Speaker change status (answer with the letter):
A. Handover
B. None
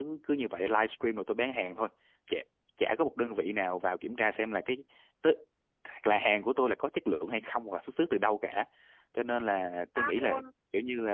B